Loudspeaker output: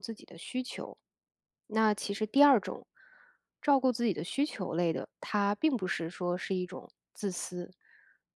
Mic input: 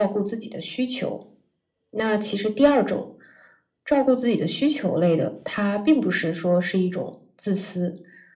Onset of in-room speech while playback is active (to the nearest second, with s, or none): none